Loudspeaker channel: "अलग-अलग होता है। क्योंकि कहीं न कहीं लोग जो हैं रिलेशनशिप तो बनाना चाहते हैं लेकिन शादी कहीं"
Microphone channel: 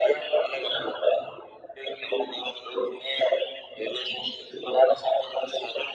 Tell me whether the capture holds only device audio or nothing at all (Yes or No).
Yes